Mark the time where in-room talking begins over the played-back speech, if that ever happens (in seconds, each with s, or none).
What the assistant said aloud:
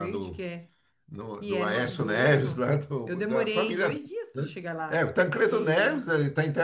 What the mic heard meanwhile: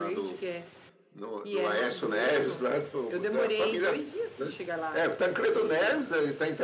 none